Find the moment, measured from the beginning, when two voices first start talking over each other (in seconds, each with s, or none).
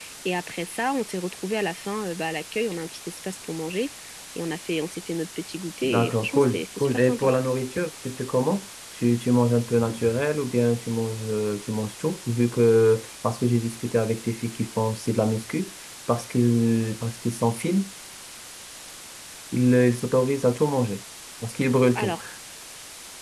5.8 s